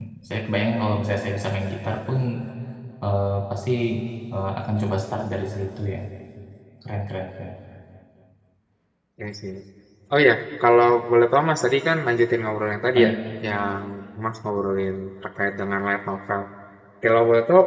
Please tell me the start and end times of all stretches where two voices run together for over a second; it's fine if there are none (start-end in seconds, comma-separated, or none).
none